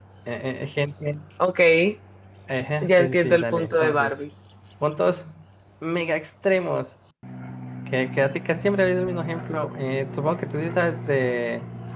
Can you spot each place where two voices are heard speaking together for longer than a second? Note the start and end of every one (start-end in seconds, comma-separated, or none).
2.8-4.1